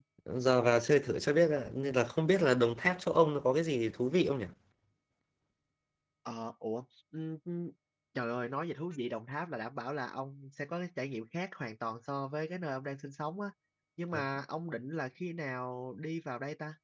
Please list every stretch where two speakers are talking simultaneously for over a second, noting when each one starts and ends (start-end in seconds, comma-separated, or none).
none